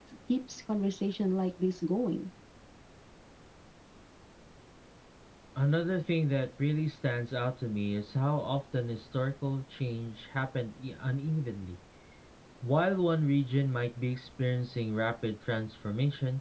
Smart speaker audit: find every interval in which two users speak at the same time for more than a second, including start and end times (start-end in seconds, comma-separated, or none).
none